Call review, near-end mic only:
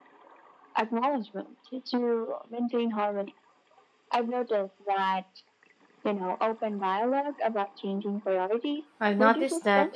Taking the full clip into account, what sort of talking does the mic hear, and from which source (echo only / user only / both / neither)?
both